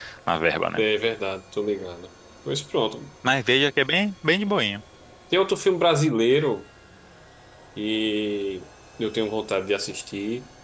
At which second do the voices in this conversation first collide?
none

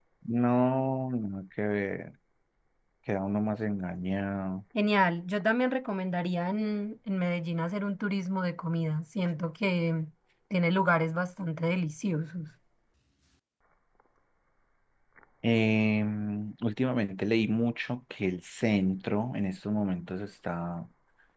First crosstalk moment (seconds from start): none

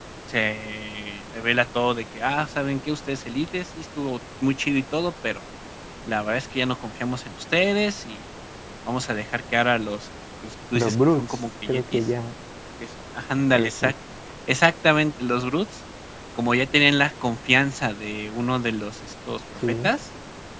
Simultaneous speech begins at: 10.8 s

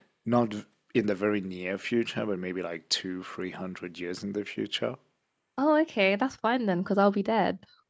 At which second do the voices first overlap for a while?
none

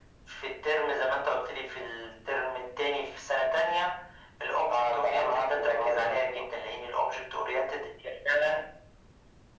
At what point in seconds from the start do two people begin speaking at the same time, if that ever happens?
4.7 s

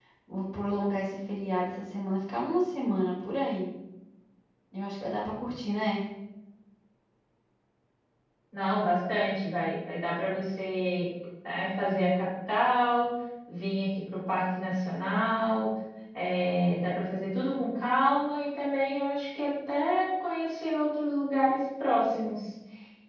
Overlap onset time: none

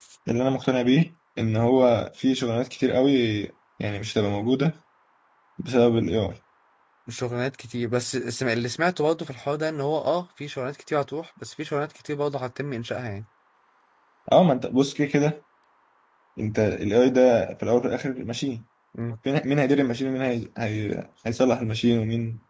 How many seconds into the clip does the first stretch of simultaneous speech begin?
none

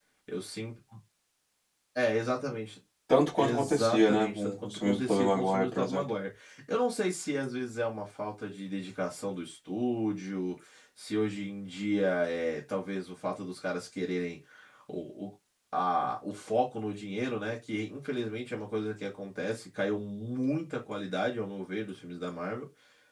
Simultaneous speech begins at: 3.4 s

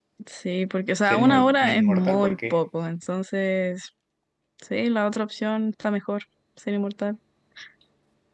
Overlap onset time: 1.0 s

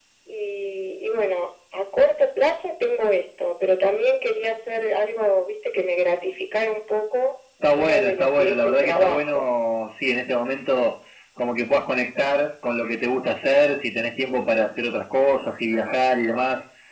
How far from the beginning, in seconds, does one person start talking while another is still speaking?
7.6 s

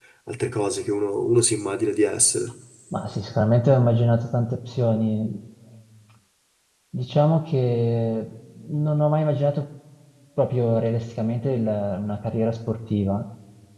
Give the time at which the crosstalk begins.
none

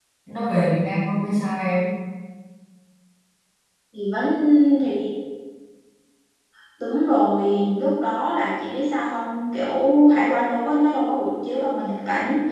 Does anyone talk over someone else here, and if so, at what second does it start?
none

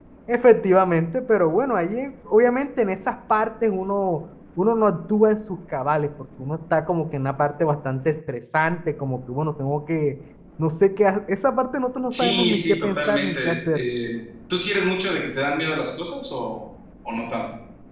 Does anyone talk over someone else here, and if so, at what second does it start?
12.1 s

